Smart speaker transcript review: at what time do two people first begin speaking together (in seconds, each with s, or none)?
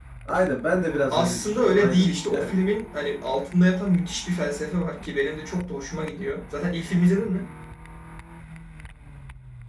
1.1 s